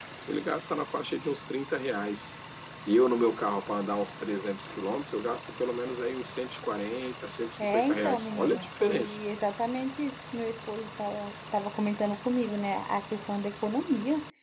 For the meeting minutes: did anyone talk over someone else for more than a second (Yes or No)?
Yes